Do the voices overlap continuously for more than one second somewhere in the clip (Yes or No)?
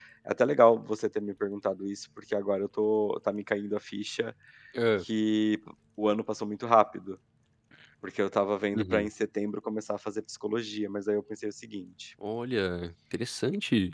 No